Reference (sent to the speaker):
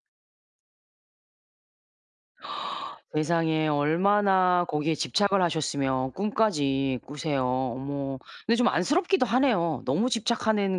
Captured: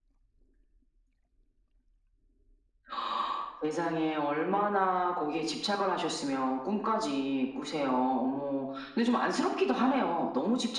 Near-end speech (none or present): none